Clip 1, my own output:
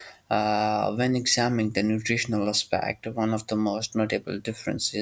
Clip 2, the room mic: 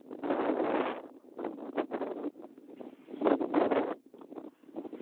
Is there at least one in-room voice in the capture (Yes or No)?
No